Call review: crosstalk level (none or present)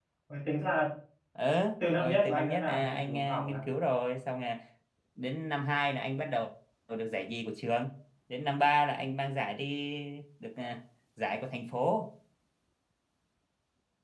present